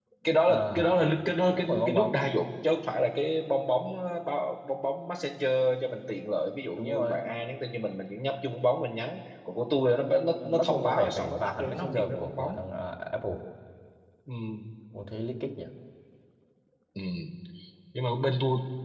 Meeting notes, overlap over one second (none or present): present